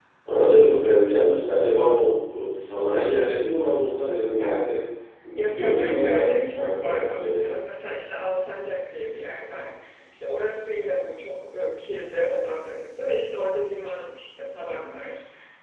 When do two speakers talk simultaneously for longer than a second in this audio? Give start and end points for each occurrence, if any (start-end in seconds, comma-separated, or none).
5.3-7.4